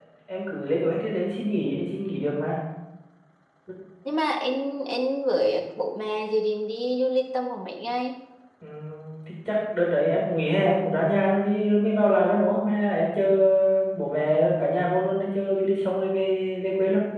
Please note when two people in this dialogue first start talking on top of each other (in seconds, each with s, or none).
none